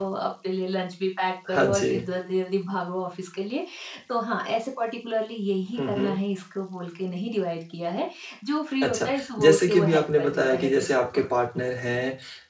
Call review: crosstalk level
present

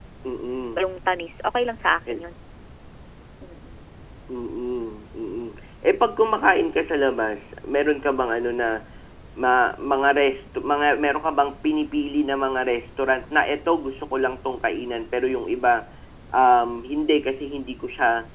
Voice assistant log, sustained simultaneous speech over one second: none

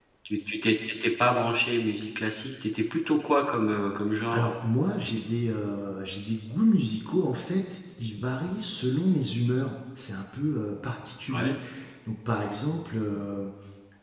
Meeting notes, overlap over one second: none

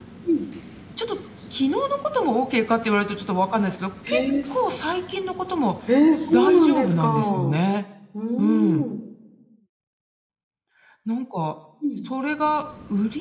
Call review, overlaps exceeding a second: present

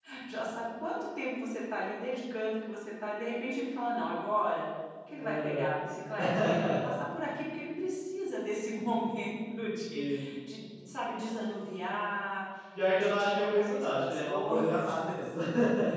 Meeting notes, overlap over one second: present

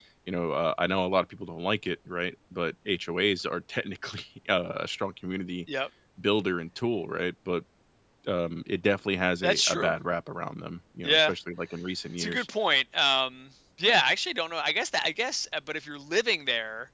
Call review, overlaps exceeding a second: none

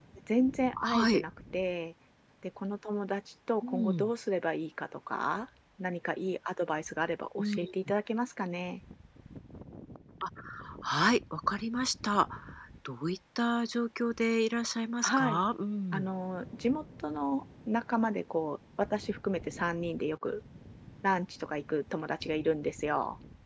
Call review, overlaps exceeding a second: none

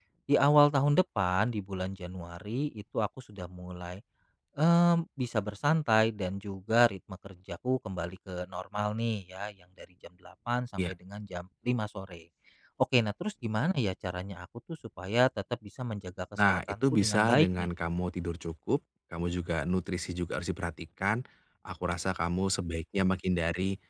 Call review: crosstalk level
present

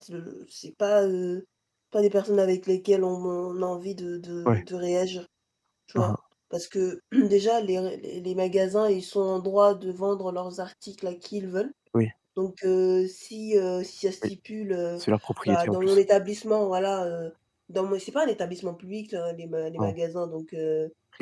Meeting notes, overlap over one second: none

